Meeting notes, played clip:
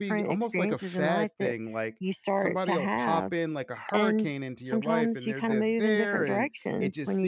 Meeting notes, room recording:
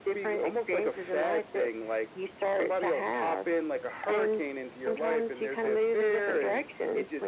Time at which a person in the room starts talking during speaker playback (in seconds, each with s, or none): none